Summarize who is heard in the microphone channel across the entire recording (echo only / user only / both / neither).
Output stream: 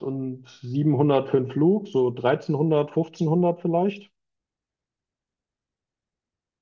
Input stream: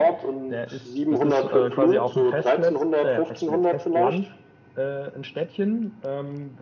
both